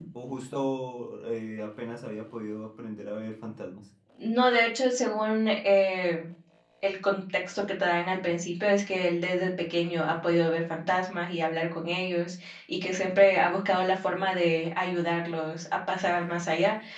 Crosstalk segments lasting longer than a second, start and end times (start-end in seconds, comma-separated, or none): none